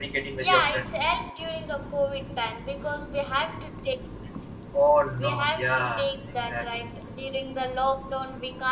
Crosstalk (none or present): present